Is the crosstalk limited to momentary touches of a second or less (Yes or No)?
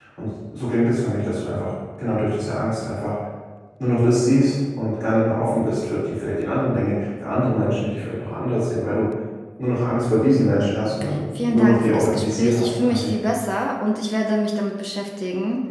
No